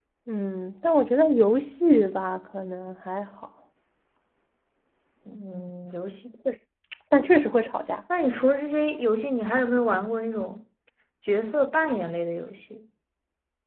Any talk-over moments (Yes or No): No